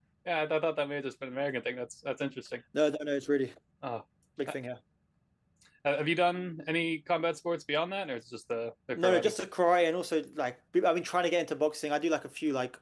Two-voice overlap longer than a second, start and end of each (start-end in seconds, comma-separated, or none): none